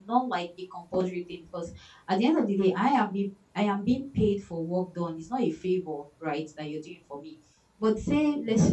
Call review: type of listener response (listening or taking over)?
listening